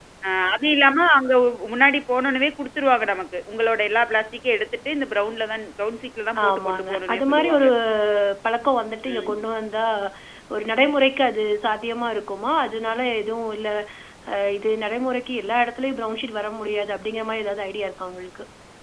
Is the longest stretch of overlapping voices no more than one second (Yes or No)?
No